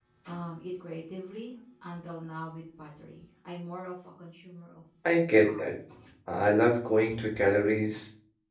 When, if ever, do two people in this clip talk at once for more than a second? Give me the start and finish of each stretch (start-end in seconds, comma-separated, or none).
none